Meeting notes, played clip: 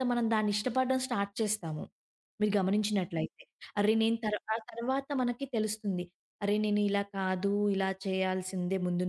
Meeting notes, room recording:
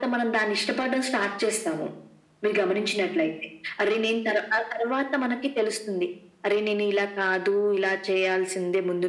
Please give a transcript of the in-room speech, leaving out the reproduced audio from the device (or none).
none